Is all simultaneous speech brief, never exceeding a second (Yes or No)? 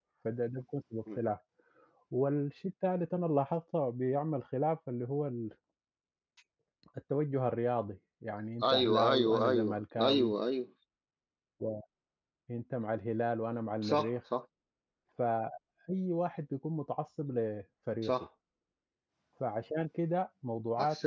No